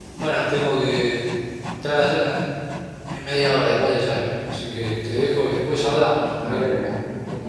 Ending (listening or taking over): taking over